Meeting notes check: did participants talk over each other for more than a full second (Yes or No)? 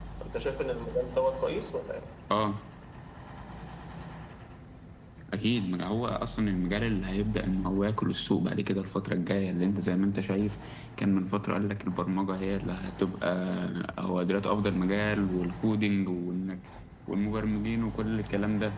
No